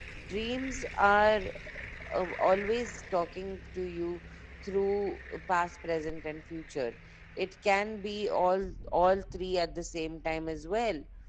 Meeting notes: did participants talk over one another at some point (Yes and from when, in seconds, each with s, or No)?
No